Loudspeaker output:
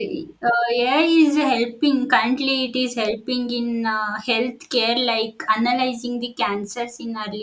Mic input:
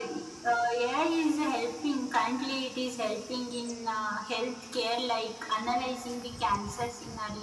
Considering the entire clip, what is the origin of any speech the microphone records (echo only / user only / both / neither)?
echo only